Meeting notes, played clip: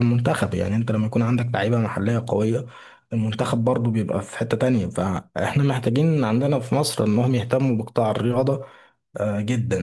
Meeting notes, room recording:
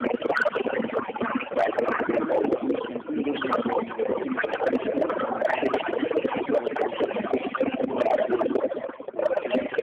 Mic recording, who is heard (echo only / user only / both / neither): both